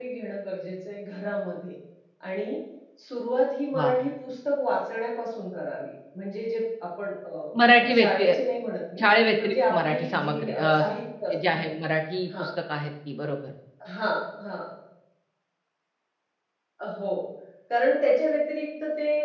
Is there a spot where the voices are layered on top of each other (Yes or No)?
Yes